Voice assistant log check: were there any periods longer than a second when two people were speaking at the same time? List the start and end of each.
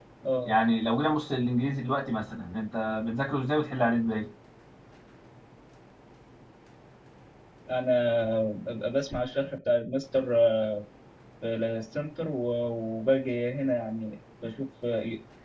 none

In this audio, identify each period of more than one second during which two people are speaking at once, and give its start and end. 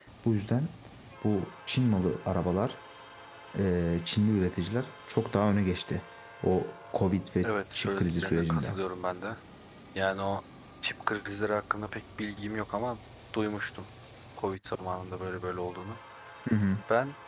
7.4-8.8

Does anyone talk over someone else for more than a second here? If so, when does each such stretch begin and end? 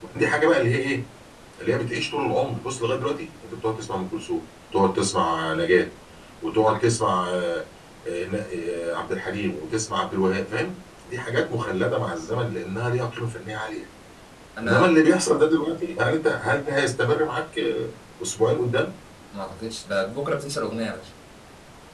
none

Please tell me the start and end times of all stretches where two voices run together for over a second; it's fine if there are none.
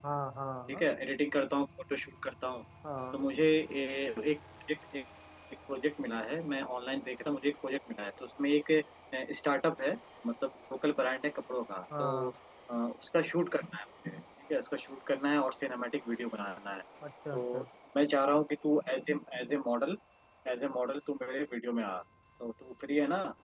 none

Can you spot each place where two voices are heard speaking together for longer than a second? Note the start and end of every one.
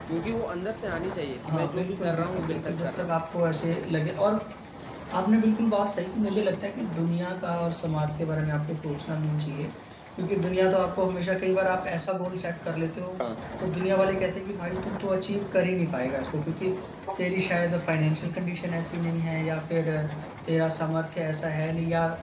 1.5-3.1

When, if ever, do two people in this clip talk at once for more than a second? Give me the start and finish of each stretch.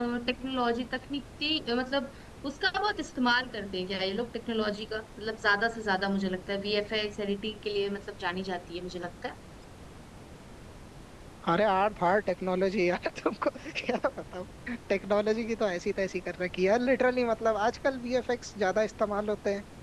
none

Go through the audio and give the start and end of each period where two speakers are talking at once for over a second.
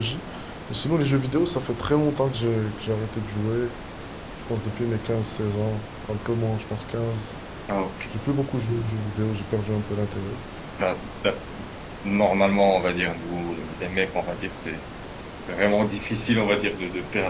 none

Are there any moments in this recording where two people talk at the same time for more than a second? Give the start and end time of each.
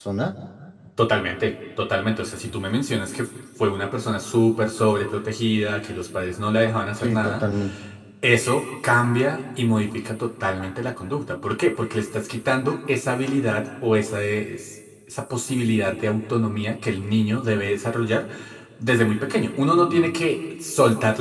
none

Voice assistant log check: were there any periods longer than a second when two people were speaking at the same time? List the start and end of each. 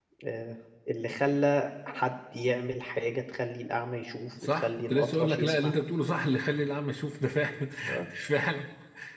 4.4-5.7

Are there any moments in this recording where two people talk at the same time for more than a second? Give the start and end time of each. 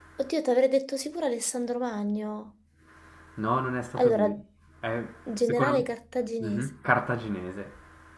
5.4-6.7

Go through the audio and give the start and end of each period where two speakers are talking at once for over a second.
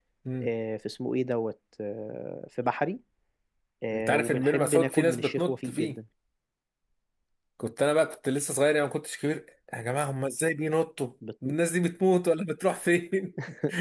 3.9-6.0

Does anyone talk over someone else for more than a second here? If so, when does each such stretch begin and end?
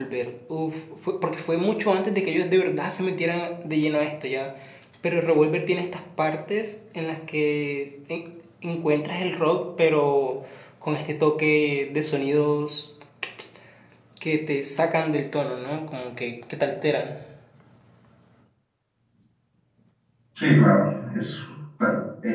none

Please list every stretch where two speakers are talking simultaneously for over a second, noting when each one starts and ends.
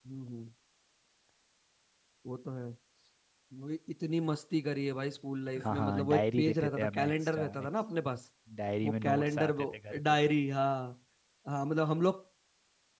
5.6-7.8, 8.8-10.2

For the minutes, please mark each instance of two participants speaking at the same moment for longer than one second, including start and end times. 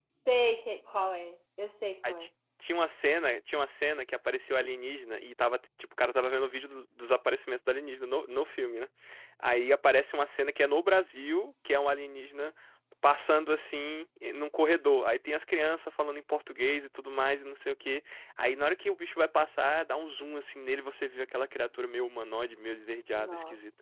none

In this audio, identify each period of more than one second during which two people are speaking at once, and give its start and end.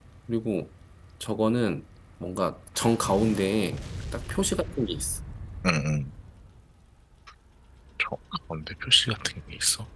none

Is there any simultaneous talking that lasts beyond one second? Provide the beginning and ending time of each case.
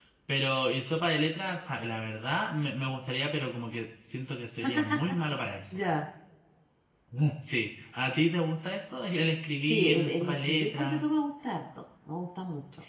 9.6-11.0

